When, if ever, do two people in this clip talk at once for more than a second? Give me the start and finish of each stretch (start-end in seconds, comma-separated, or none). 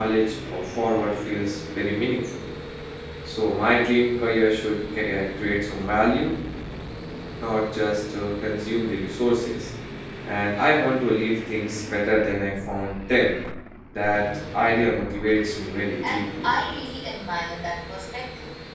none